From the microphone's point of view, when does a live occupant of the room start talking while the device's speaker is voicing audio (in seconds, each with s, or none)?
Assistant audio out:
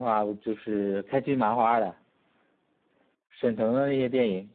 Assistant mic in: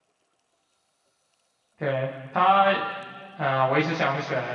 1.8 s